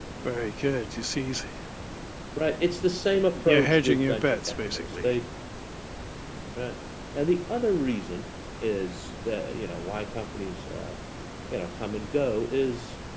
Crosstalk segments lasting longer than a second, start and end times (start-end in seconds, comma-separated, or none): 3.4-5.1